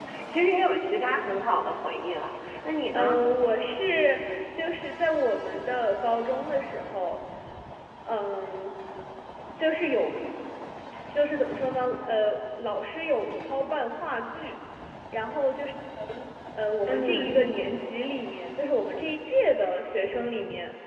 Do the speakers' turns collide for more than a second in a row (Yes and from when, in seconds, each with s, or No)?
No